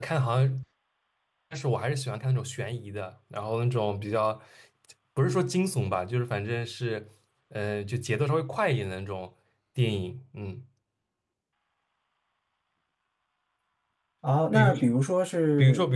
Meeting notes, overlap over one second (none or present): none